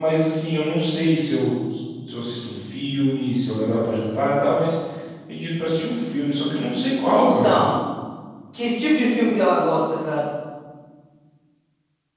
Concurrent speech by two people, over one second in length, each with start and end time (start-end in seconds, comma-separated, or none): none